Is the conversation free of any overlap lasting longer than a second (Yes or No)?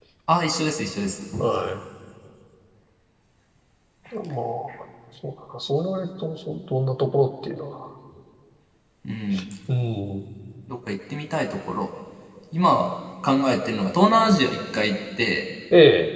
Yes